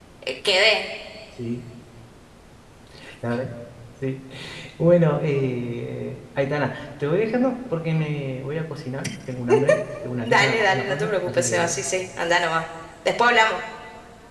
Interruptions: present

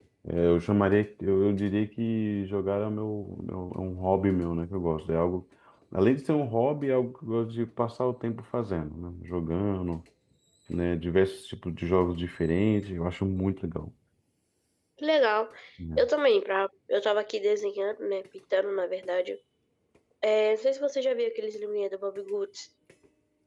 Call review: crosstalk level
none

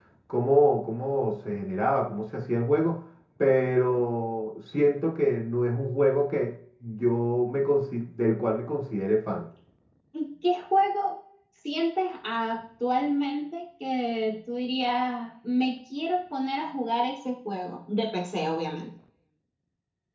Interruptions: none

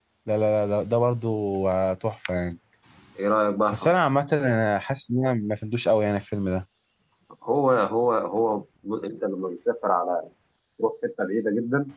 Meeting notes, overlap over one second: none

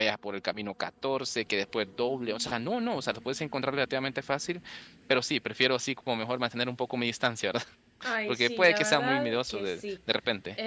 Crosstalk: present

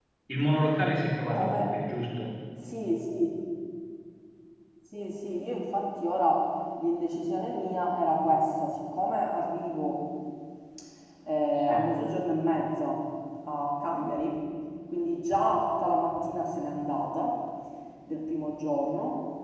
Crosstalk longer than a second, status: none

